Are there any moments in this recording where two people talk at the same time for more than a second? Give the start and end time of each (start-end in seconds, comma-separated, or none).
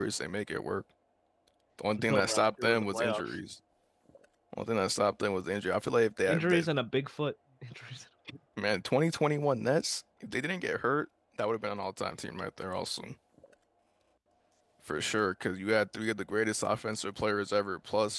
1.9-3.3